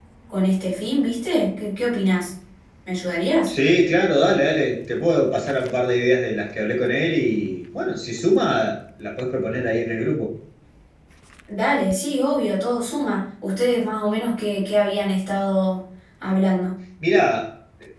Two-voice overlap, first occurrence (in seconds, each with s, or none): none